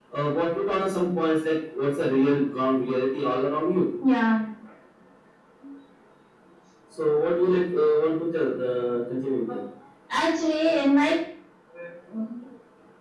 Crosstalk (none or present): none